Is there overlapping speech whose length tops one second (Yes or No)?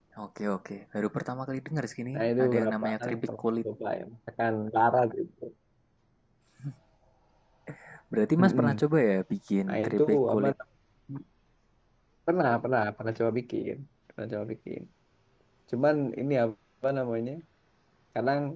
Yes